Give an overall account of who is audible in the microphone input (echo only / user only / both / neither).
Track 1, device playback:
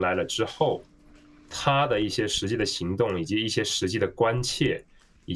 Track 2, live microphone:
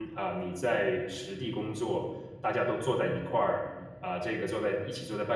user only